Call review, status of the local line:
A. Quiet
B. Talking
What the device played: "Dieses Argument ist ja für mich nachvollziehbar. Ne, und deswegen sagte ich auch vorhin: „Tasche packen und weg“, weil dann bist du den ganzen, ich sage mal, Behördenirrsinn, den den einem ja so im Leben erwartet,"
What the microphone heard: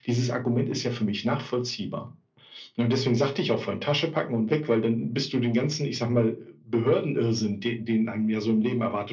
A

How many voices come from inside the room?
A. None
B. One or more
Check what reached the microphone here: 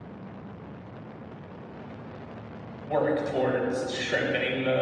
B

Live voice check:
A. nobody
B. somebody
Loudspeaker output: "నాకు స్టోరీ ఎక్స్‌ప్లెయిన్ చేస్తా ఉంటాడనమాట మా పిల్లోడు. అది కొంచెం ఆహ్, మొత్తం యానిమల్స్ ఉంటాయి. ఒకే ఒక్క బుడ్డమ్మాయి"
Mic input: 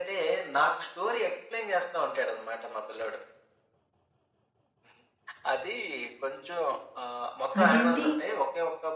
B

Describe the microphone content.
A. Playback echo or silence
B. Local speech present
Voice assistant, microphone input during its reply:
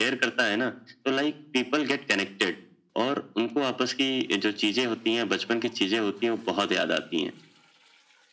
A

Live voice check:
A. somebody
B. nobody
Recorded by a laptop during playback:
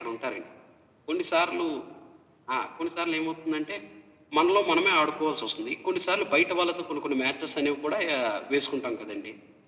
B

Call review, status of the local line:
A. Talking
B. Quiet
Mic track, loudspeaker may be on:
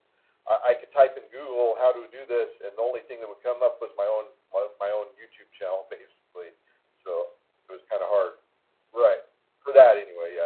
B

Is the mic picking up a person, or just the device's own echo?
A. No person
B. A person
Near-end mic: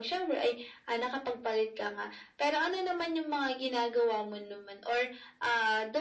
A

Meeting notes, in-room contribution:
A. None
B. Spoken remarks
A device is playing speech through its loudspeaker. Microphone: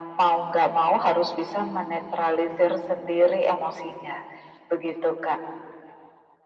A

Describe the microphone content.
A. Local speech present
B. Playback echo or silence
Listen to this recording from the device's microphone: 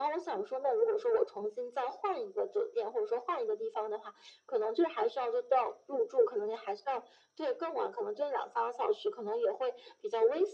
B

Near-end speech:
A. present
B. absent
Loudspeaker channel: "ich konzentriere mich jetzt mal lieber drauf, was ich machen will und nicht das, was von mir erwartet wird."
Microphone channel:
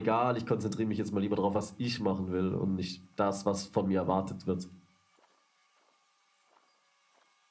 B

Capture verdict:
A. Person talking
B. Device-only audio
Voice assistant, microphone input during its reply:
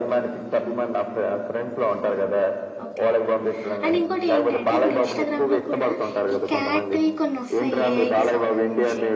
A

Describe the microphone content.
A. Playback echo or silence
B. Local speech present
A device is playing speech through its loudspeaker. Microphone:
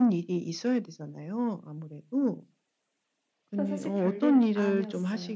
B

